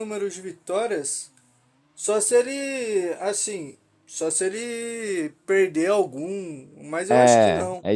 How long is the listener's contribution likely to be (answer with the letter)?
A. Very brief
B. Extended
B